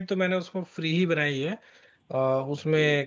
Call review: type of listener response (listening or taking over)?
listening